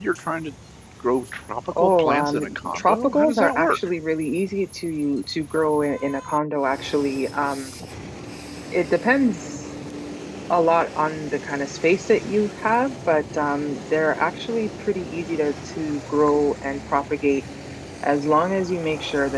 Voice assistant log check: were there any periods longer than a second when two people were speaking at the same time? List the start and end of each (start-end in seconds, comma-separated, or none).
1.8-3.8